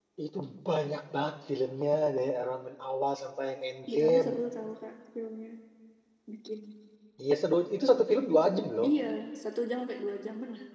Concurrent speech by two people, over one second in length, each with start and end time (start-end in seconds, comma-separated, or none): none